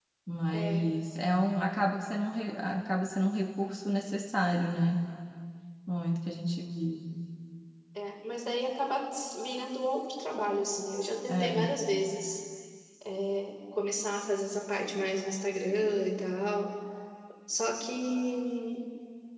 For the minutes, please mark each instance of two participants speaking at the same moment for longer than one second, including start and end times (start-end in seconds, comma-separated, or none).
none